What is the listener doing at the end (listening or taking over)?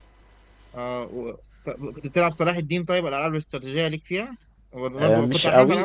taking over